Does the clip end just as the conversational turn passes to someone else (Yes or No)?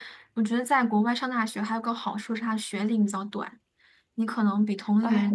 Yes